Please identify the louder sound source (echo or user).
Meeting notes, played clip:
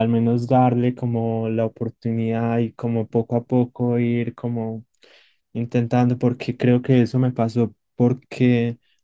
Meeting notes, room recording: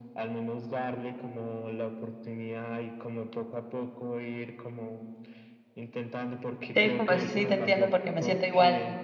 user